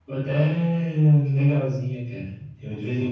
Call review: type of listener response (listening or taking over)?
listening